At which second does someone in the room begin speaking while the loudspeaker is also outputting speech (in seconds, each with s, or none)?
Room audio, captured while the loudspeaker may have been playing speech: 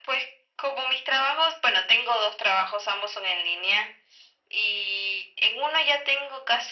none